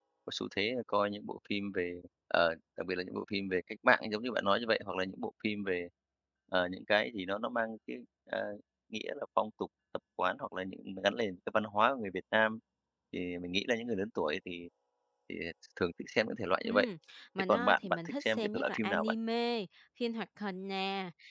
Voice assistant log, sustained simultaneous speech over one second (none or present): present